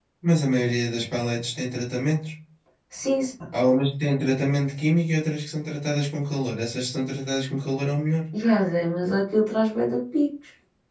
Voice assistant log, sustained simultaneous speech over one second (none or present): none